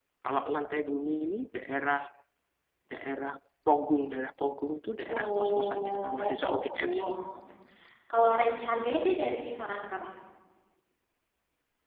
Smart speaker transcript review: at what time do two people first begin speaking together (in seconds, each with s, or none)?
5.1 s